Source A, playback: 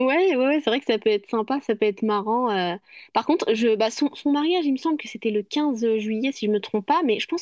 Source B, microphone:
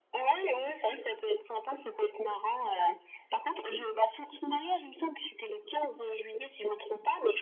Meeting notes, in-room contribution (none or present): none